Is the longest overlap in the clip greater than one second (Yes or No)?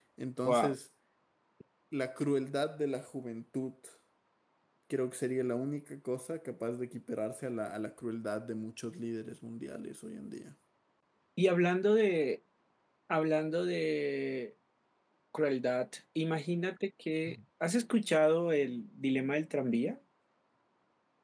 No